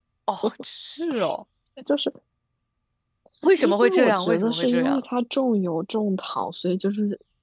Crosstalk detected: Yes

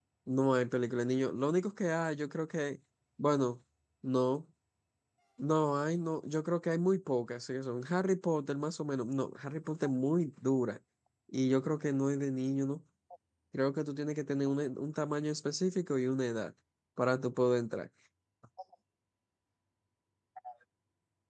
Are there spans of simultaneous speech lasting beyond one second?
No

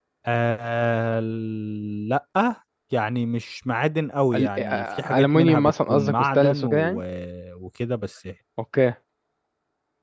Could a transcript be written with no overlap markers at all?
No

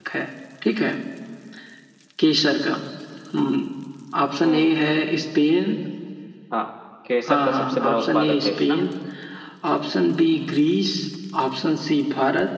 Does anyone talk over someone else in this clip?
Yes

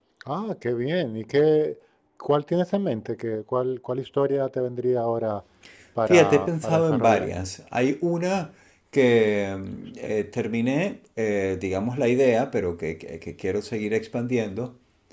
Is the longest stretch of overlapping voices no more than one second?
No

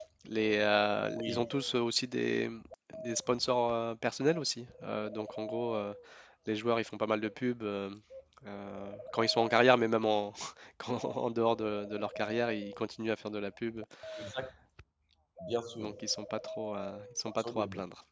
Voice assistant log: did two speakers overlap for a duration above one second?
No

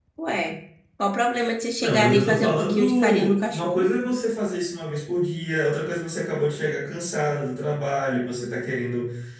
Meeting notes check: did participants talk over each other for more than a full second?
Yes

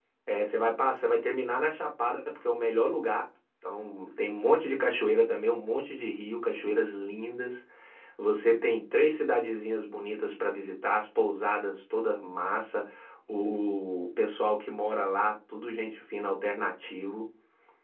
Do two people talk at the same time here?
No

